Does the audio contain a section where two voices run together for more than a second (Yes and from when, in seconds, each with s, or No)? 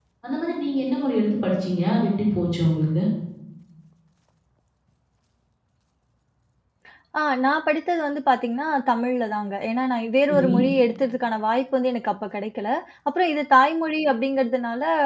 No